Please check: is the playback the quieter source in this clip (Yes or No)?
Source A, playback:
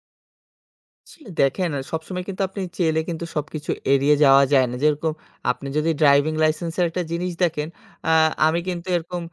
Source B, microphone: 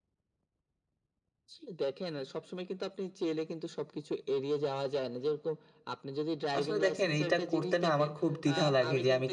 Yes